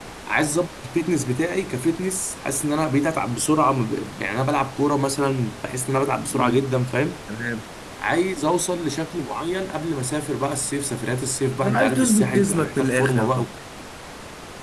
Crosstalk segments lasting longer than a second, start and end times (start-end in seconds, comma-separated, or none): 11.7-13.5